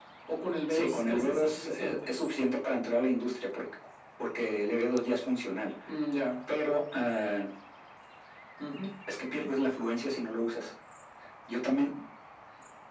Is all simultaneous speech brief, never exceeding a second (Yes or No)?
No